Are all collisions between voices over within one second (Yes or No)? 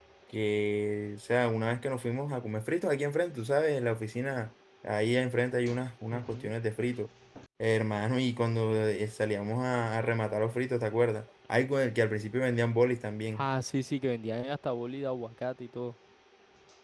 Yes